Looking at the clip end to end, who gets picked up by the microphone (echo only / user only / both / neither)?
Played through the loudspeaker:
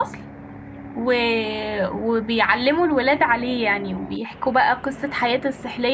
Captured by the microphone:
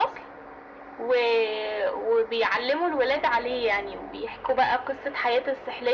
echo only